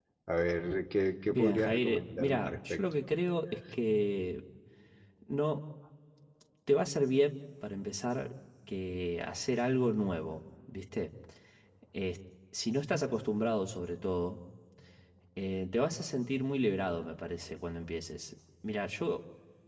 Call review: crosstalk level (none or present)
present